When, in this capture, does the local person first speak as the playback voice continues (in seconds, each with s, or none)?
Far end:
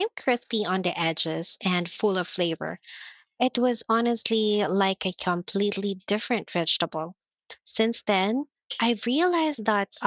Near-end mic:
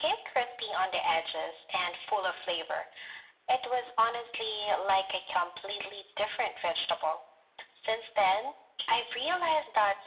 none